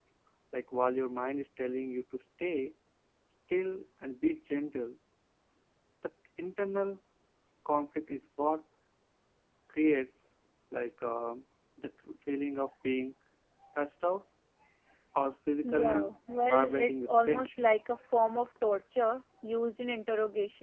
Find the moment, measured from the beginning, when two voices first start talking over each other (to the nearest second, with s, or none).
16 s